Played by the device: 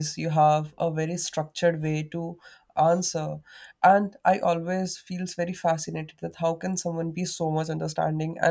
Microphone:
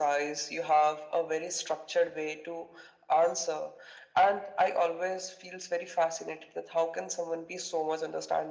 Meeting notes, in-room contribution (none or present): none